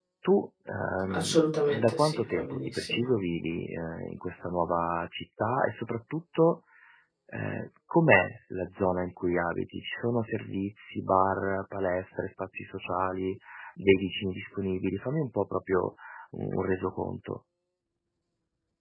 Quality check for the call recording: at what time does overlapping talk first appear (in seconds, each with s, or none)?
1.1 s